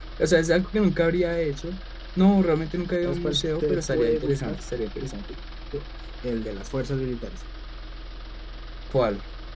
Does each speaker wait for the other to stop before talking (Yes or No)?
No